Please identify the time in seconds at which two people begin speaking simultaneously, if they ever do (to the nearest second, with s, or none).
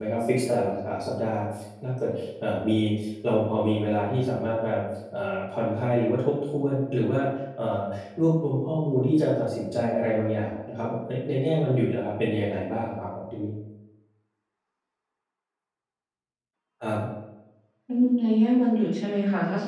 none